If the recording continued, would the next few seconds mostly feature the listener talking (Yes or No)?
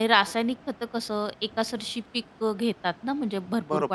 Yes